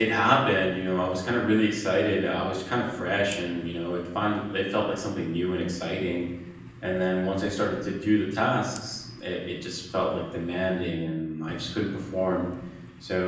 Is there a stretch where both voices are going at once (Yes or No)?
No